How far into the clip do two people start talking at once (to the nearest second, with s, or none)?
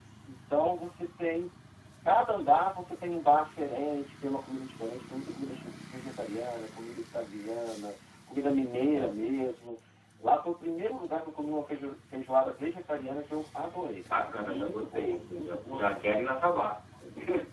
14 s